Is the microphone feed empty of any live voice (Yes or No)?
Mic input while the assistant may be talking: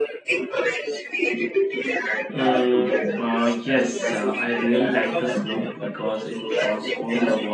No